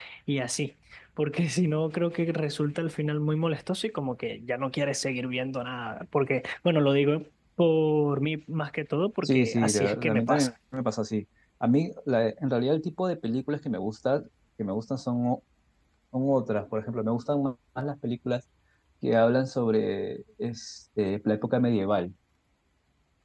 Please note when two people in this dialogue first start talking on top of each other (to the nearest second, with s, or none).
9 s